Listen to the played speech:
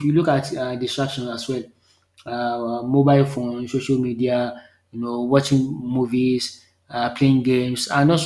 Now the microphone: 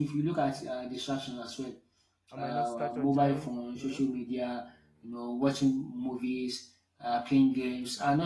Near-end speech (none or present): present